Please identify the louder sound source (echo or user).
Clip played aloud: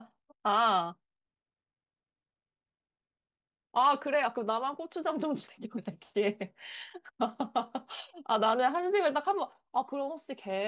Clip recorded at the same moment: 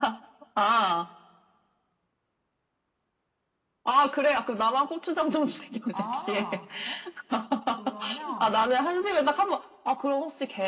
echo